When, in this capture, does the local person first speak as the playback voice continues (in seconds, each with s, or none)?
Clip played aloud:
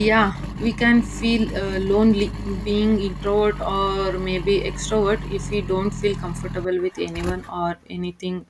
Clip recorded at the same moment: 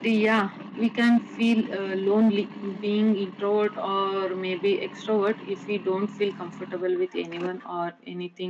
none